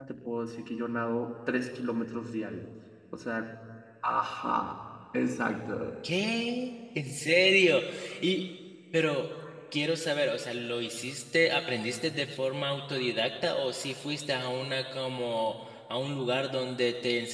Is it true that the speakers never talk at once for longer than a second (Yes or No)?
Yes